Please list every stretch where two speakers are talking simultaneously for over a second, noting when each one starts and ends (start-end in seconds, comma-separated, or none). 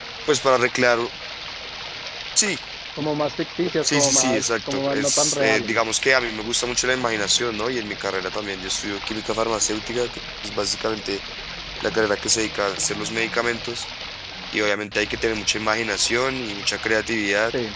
3.8-5.8